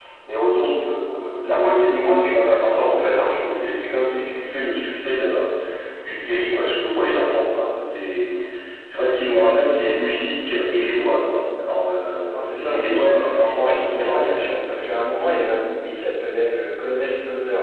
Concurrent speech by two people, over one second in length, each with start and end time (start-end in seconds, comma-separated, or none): 12.3-14.4